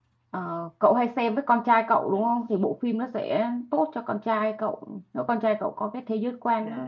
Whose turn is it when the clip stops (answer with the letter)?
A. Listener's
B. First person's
A